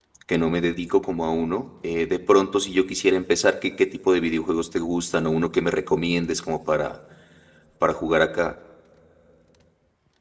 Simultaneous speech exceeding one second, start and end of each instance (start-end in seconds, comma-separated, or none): none